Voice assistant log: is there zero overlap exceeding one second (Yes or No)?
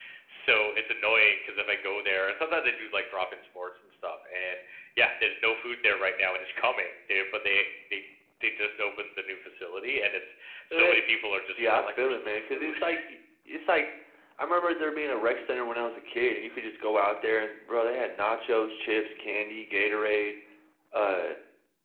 No